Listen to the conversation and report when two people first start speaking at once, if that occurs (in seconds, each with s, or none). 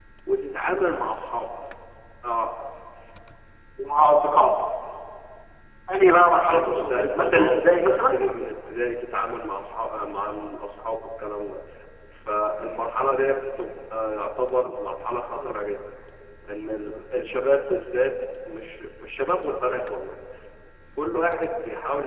6.5 s